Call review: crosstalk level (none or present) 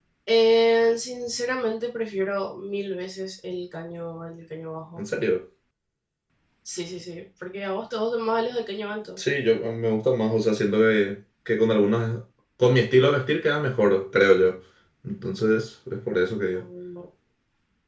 none